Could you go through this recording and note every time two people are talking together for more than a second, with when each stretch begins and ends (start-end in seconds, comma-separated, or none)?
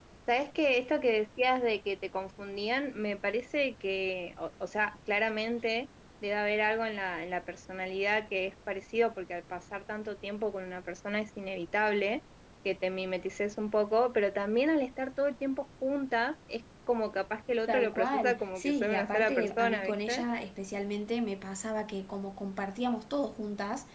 17.7-20.2